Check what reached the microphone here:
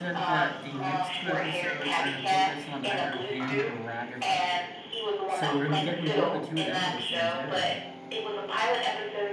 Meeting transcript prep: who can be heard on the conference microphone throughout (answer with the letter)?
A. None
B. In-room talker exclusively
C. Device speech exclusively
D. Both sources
D